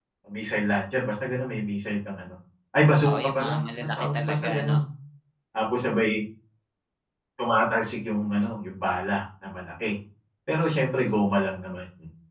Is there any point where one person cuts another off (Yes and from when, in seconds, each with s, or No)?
Yes, from 3.0 s